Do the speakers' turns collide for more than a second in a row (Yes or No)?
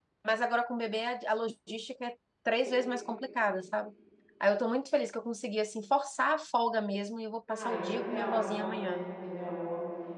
Yes